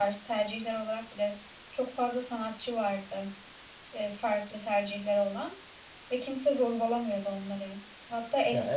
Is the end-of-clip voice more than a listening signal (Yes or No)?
No